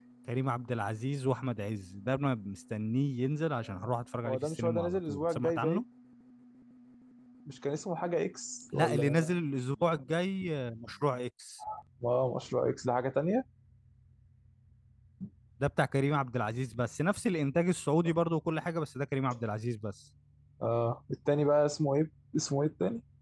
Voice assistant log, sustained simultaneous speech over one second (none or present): present